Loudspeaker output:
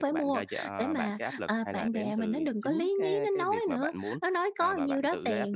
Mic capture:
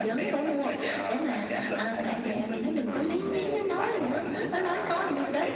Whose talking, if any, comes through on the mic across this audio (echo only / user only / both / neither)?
both